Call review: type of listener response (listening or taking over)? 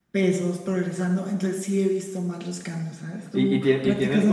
taking over